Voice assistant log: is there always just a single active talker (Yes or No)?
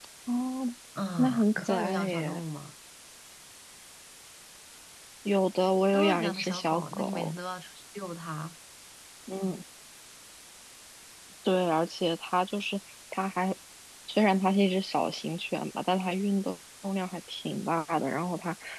No